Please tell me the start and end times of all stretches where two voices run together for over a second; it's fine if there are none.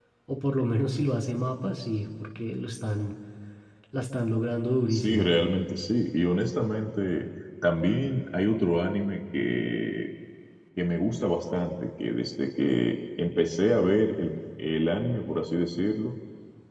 none

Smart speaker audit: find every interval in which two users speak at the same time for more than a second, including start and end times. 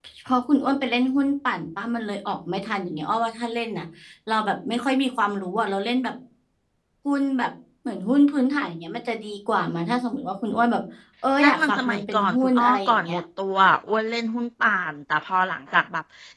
11.4-13.2

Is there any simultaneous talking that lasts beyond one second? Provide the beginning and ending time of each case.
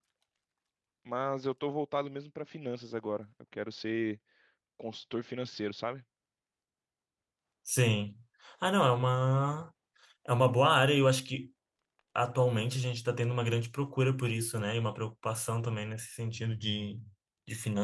none

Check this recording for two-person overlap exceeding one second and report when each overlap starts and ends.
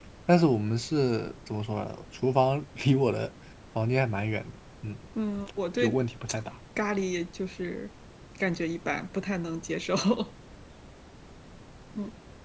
none

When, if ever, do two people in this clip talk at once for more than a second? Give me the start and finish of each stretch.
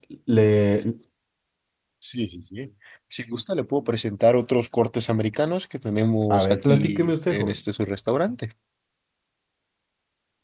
6.3-7.6

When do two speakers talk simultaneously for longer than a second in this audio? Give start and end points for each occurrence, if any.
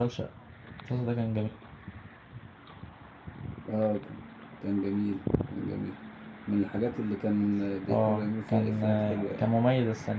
7.9-9.5

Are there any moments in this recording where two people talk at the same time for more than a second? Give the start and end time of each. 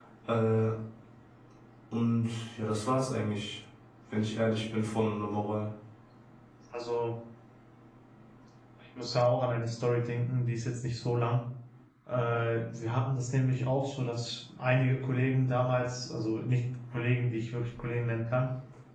none

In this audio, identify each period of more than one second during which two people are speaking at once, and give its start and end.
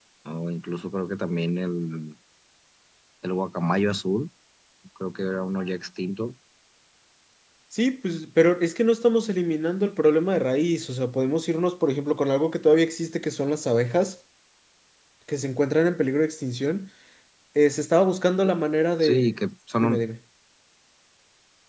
none

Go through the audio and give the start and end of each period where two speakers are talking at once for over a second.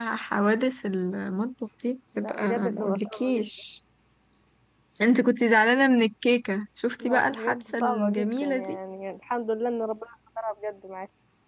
2.2-3.4, 7.0-8.8

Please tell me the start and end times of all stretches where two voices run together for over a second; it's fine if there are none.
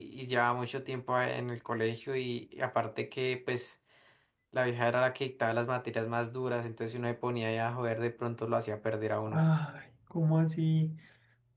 none

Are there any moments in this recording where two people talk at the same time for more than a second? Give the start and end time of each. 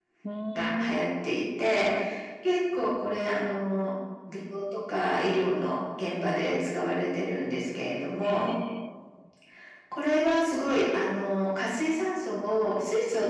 none

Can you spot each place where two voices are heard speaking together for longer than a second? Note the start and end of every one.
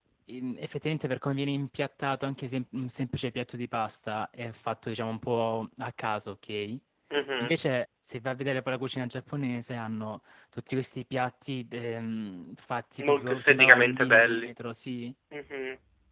13.0-14.5

